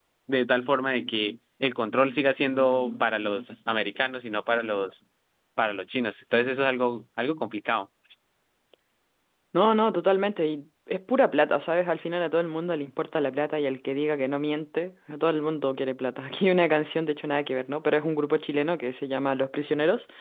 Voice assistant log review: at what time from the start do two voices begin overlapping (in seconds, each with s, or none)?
none